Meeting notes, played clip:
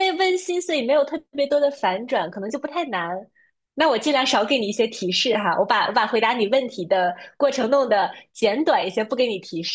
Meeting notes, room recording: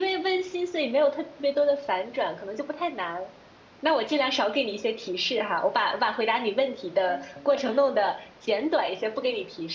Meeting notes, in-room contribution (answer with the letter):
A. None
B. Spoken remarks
B